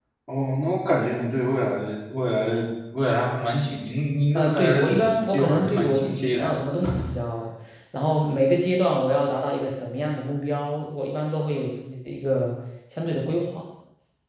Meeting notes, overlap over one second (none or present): present